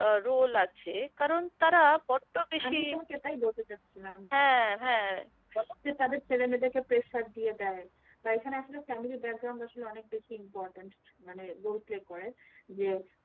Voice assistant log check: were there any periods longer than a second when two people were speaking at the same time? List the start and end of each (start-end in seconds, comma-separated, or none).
none